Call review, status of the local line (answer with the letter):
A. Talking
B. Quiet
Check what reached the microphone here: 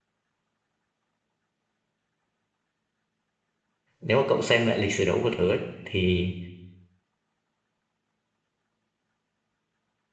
A